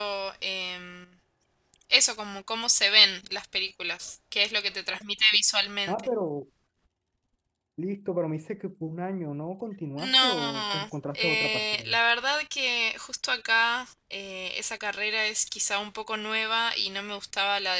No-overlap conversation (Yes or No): No